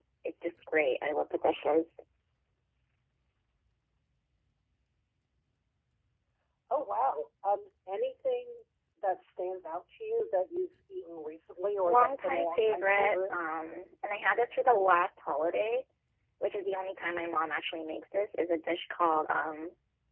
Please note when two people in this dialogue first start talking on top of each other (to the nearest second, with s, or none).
12 s